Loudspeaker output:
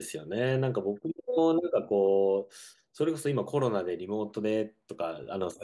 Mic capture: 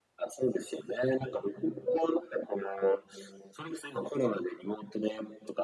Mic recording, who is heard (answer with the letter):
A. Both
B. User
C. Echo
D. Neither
C